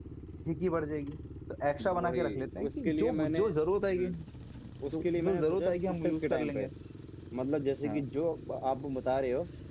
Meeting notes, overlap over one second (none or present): present